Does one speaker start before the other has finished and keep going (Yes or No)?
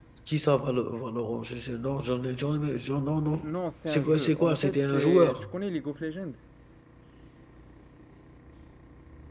Yes